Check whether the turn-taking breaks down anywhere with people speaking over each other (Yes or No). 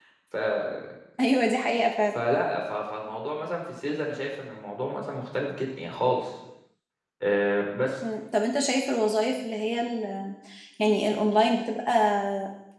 No